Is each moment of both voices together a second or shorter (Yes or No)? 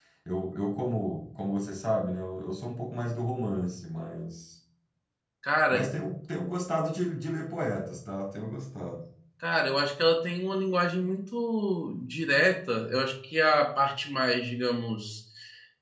Yes